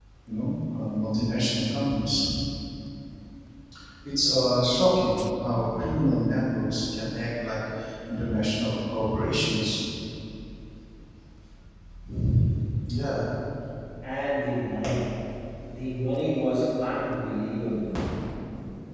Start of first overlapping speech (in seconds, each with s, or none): none